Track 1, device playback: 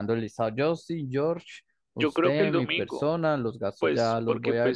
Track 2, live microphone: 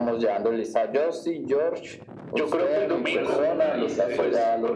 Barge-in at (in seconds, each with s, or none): 3.1 s